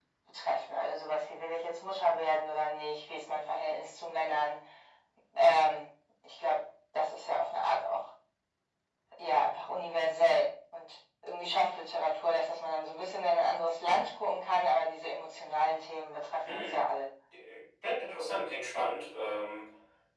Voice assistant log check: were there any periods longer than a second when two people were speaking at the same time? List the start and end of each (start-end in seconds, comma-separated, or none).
none